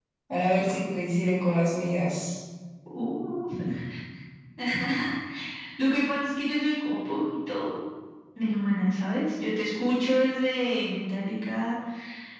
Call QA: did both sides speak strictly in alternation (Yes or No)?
Yes